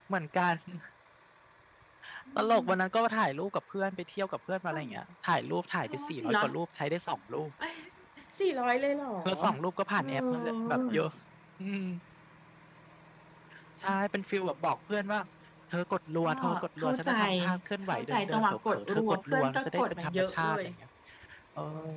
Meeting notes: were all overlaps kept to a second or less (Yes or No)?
No